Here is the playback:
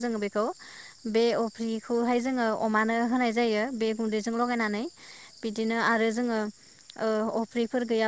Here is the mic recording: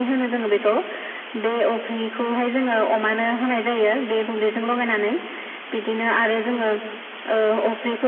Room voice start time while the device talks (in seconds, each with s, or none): none